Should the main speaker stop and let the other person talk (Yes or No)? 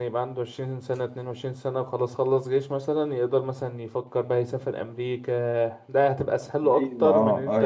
Yes